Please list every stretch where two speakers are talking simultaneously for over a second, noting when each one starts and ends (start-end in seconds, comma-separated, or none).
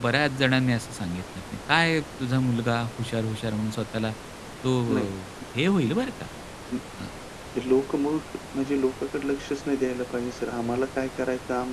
none